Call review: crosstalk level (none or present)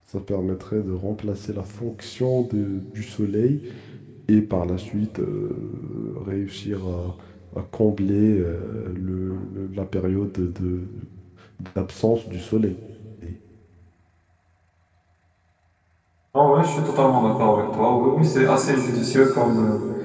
none